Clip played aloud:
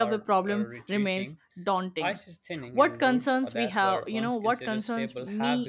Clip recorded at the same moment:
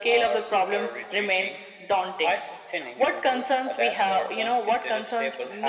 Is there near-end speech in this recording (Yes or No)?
No